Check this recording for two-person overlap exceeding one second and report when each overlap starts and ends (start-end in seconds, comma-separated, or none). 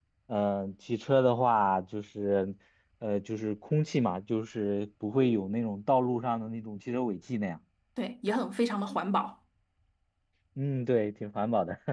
none